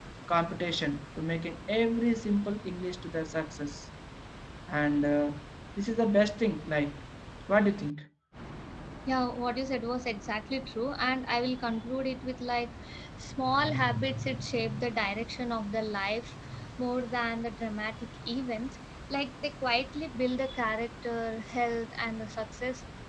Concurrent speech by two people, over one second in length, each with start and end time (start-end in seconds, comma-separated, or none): none